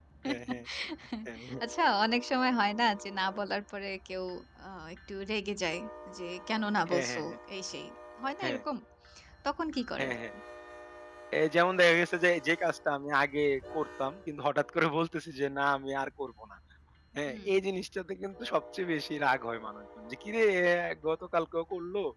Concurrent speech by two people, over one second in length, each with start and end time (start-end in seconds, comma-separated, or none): none